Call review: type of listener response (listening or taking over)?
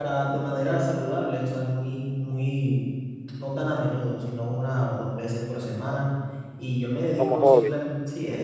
listening